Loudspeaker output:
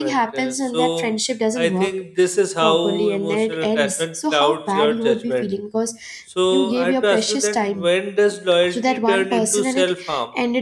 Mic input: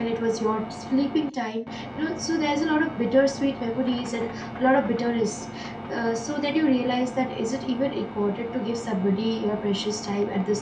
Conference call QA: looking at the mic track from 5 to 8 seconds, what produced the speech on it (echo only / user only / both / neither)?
user only